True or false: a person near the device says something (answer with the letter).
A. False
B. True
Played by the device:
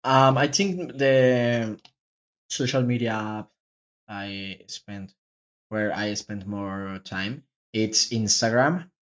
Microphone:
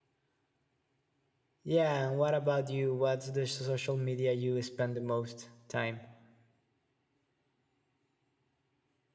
B